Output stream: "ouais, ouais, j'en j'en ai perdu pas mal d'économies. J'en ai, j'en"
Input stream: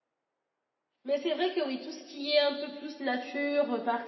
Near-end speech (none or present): present